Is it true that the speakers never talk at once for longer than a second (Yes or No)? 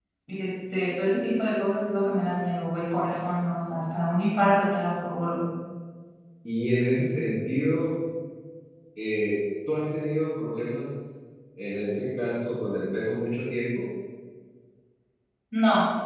Yes